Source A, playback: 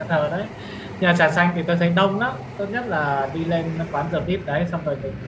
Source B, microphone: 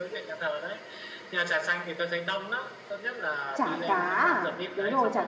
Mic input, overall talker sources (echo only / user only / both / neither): both